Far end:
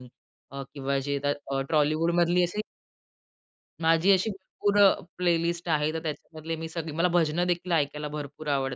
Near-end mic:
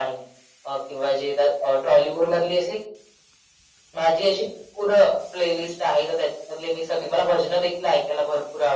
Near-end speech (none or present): none